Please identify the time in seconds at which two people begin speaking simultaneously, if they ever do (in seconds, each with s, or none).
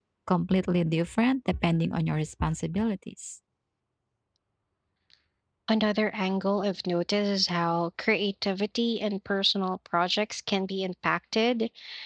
none